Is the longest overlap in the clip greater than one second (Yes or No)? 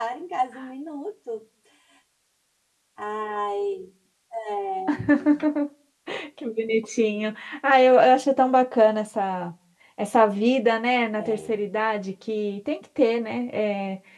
No